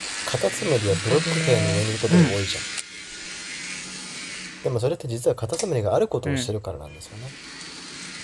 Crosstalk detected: Yes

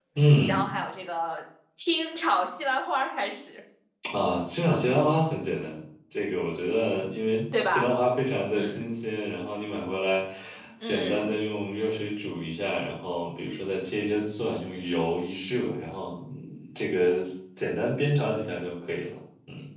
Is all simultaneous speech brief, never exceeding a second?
Yes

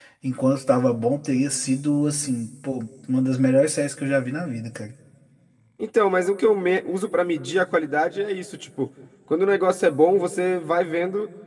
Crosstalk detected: No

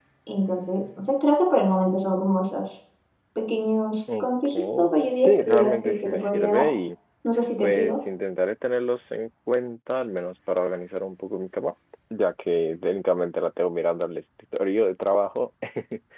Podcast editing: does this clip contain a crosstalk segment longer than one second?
Yes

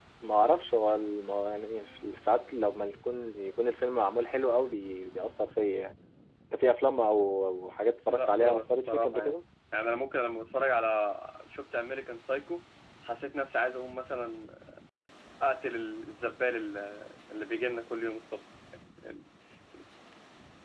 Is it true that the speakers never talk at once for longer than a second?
No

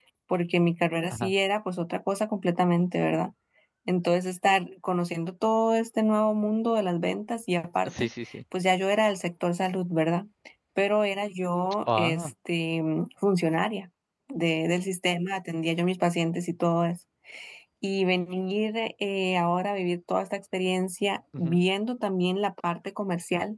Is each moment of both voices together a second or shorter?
Yes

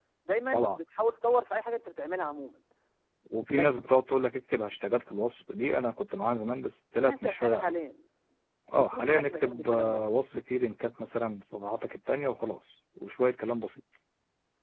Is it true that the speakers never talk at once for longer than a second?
No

